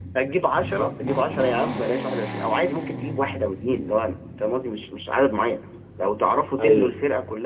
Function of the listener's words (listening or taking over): listening